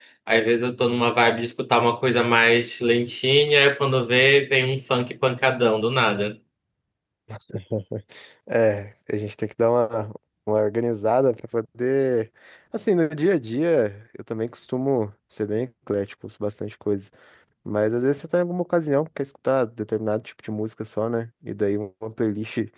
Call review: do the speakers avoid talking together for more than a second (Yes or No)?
Yes